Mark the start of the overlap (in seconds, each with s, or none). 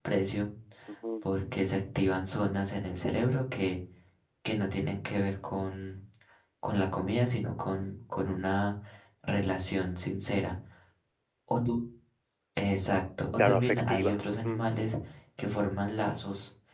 13.4 s